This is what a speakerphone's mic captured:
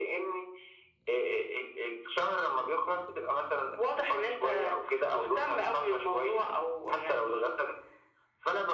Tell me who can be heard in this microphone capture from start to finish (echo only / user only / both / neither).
echo only